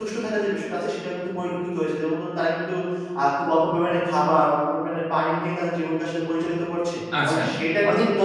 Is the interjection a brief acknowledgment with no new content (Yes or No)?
No